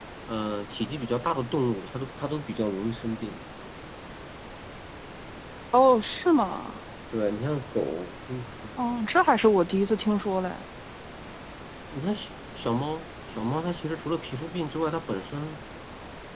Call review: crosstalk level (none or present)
none